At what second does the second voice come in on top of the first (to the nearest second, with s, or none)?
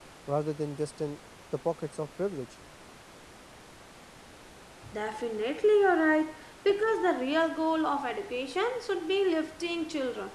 none